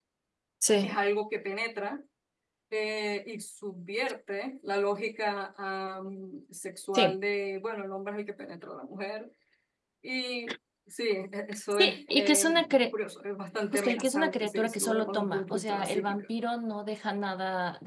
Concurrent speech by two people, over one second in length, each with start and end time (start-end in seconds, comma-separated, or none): 11.7-12.9, 13.7-16.3